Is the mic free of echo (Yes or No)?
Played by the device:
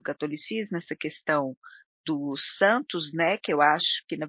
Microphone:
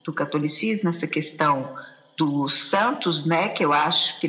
No